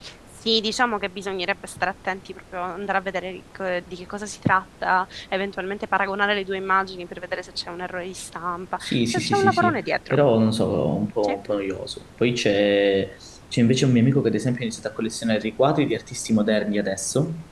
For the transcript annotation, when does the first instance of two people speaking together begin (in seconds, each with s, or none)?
8.8 s